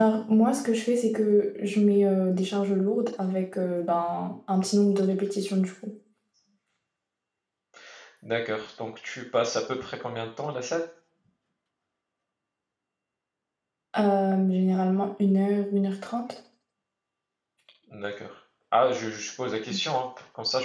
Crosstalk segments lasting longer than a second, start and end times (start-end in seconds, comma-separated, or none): none